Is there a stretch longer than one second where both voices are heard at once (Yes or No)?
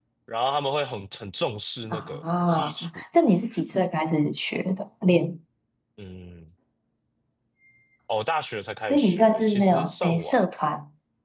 Yes